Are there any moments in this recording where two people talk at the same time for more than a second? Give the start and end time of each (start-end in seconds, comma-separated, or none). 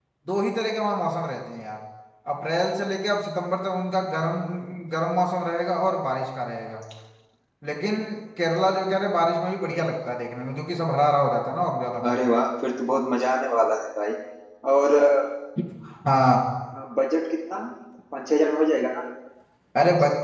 none